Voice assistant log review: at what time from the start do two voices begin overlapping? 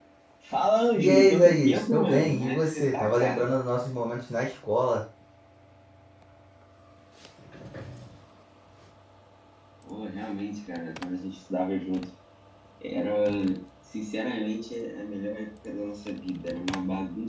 1.0 s

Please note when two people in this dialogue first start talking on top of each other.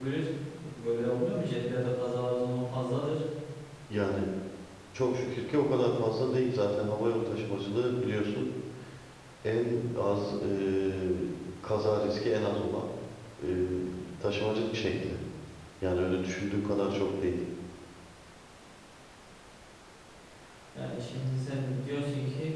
none

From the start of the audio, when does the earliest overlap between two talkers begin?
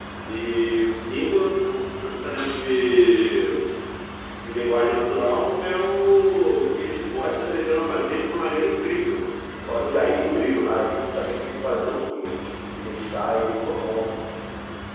9.7 s

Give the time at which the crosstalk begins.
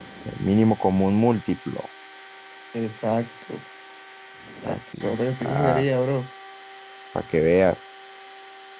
4.7 s

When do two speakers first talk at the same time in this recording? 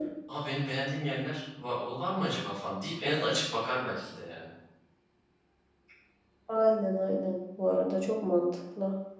none

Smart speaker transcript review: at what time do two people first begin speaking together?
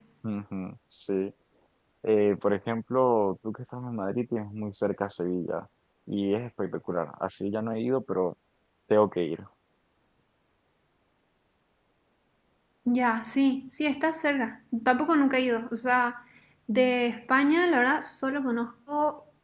none

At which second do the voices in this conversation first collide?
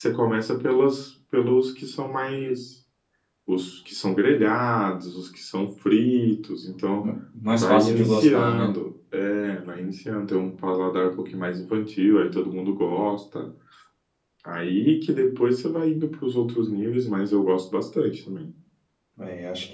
7.5 s

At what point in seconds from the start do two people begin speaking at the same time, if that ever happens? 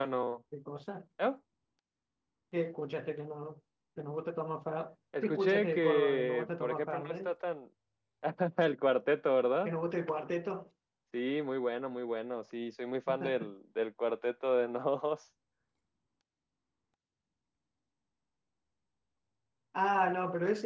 5.2 s

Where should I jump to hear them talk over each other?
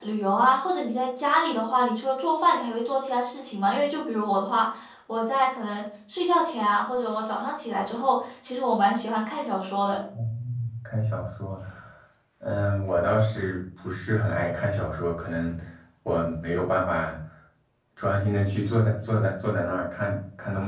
none

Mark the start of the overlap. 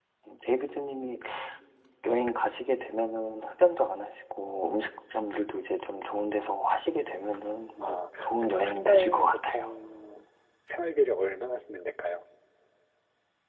7.8 s

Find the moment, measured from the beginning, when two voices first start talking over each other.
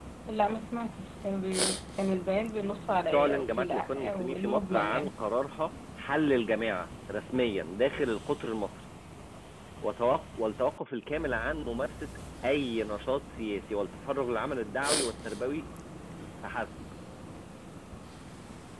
3.1 s

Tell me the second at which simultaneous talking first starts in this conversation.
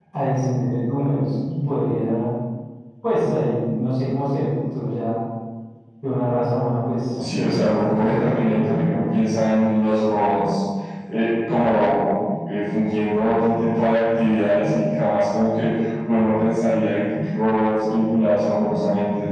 7.2 s

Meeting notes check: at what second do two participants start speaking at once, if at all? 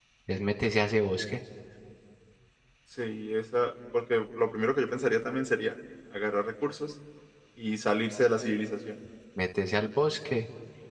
none

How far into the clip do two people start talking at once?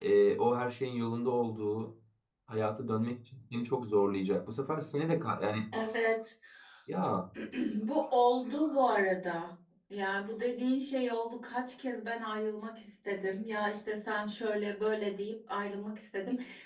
none

